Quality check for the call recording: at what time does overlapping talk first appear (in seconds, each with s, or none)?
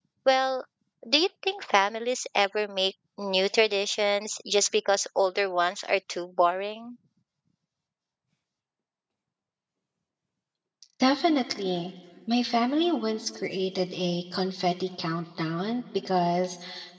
none